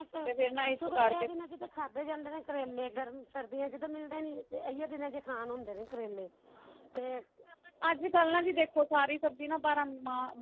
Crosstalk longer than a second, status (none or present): none